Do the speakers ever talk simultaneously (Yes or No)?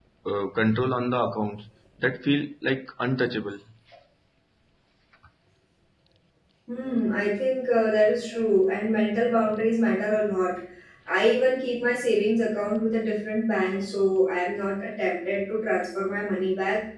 No